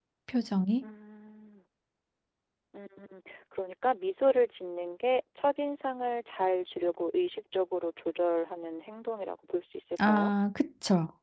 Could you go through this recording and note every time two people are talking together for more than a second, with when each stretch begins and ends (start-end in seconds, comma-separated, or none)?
none